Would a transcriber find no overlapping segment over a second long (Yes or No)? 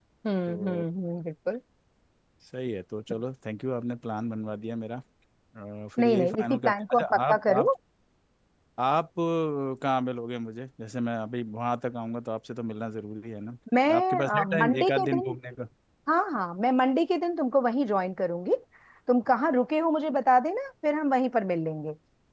No